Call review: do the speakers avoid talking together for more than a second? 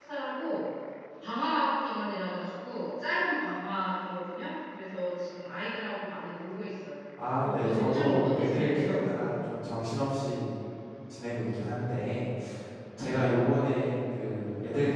No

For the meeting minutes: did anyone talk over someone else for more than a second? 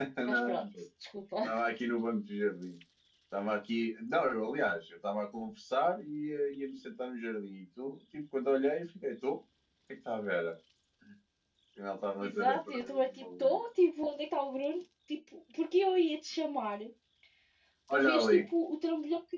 Yes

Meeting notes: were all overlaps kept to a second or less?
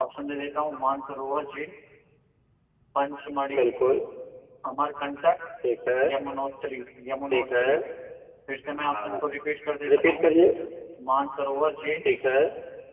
Yes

